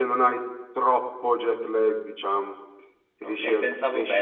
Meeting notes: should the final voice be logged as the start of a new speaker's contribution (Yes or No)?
Yes